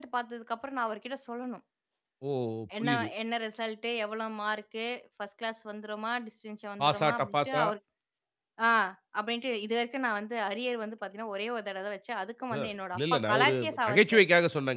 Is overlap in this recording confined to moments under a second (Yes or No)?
No